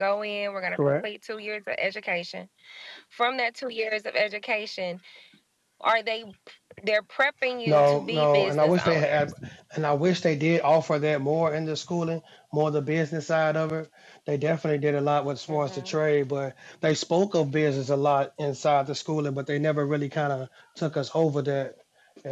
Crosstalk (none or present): present